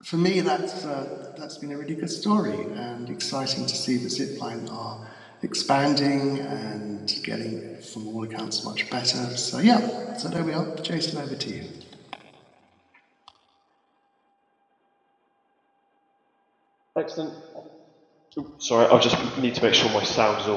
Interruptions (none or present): none